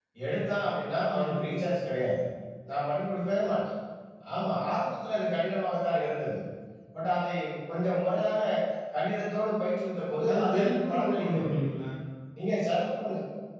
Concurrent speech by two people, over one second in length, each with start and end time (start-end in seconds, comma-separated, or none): 10.3-11.6